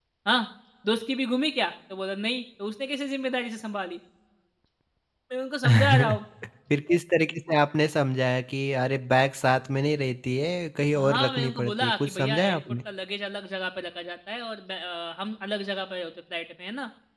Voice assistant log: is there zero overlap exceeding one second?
No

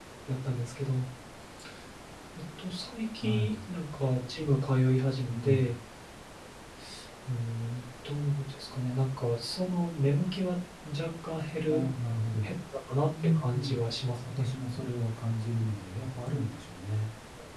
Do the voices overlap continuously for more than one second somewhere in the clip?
No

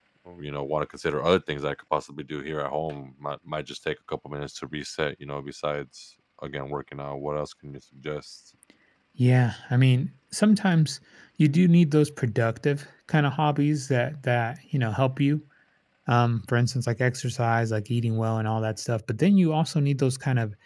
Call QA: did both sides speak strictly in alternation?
Yes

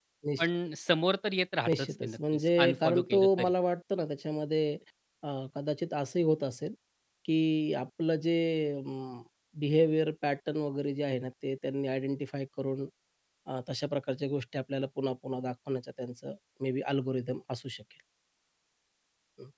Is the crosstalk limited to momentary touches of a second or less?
No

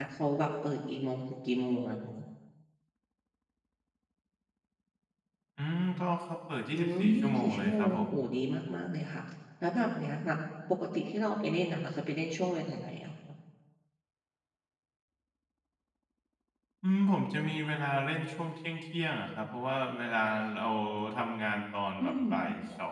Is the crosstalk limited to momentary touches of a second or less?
No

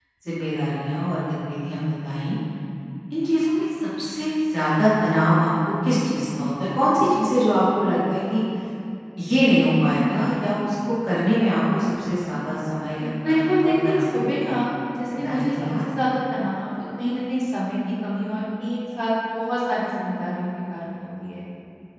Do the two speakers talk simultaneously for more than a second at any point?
Yes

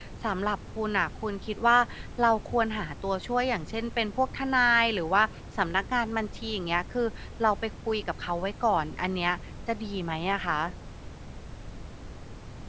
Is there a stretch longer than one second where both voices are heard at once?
No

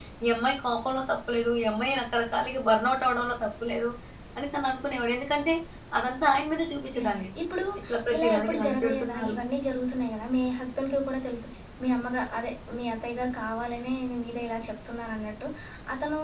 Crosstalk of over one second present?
Yes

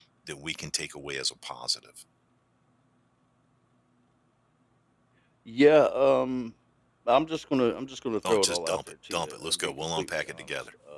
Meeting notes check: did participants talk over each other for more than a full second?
Yes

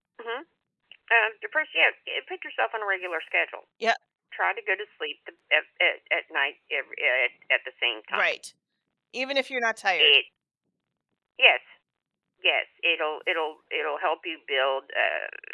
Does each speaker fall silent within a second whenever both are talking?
Yes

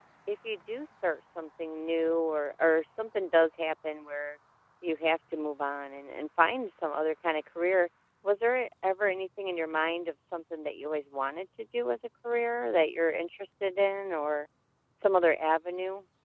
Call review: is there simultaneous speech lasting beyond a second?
No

